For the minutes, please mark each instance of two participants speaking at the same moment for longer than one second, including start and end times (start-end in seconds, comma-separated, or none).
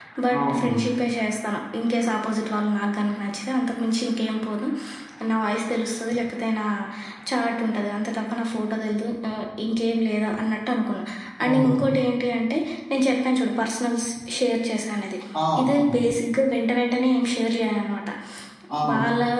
none